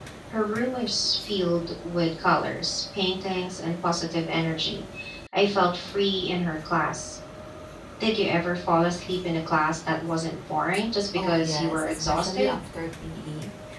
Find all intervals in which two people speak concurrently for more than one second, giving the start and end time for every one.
11.2-12.6

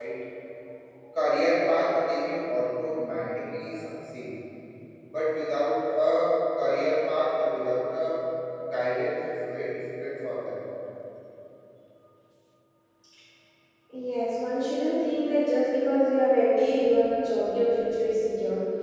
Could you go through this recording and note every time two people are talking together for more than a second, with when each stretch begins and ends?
none

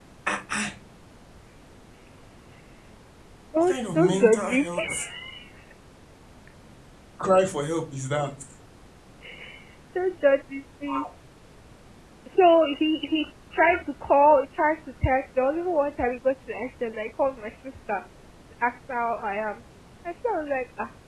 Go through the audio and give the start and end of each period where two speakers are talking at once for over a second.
3.6-5.0

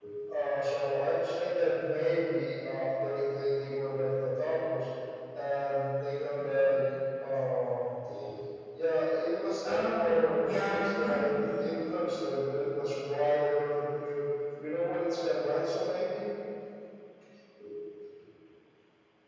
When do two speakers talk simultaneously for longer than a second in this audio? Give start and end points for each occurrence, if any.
9.6-11.7

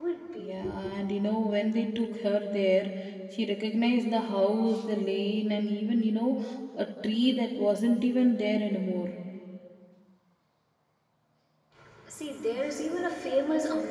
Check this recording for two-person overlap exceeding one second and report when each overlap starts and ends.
none

